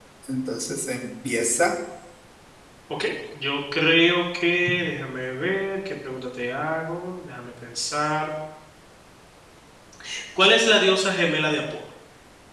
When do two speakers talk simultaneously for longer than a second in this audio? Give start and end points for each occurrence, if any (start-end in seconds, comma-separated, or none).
none